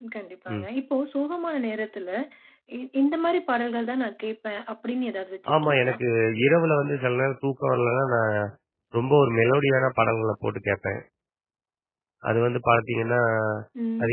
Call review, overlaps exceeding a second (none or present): none